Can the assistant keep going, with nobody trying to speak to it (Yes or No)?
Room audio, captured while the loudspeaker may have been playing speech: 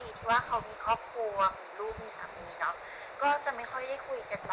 Yes